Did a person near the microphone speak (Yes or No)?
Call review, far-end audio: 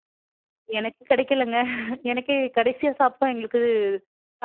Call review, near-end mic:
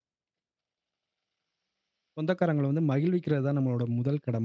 Yes